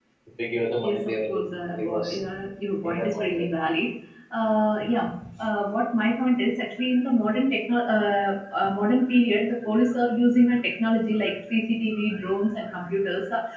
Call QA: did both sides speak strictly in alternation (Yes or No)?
No